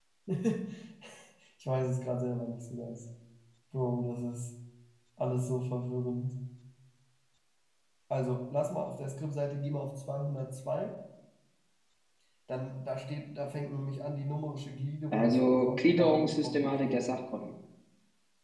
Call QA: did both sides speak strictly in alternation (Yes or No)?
No